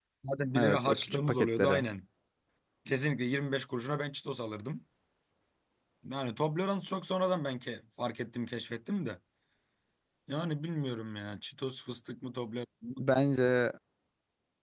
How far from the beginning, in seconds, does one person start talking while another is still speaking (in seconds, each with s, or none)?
0.6 s